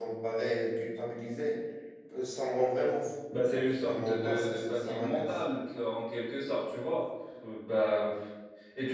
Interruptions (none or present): present